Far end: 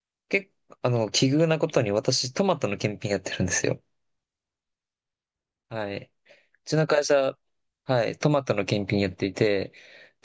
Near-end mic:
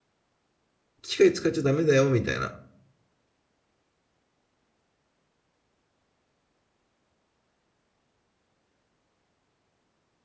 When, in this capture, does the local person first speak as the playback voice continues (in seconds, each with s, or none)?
1.0 s